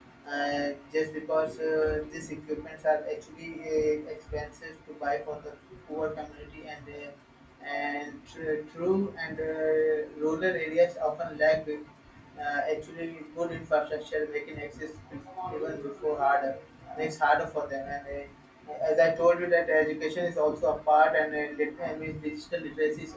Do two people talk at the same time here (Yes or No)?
No